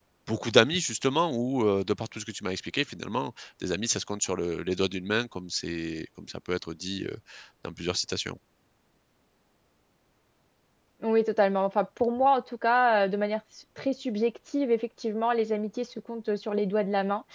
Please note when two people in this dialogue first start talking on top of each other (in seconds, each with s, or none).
none